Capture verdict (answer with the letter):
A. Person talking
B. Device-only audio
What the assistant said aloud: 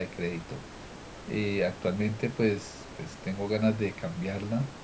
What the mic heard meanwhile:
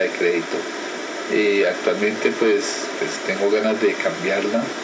B